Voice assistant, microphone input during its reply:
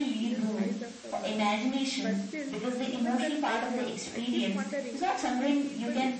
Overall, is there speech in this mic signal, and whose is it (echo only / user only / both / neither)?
both